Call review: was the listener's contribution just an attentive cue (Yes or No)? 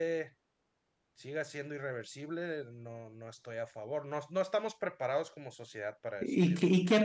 No